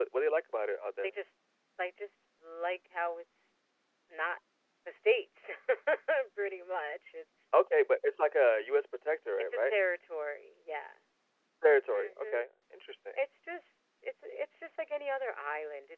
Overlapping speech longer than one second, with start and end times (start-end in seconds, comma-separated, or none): none